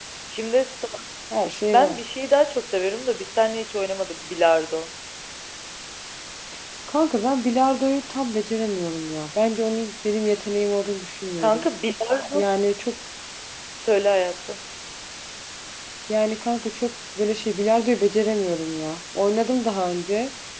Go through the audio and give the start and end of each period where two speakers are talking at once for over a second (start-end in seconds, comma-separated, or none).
none